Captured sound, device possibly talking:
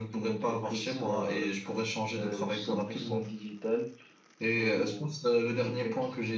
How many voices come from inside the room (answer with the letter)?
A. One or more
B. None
B